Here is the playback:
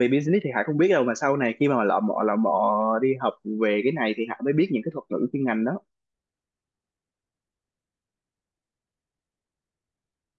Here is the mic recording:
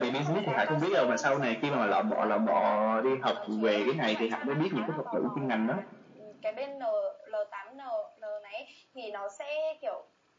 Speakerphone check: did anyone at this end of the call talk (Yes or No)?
Yes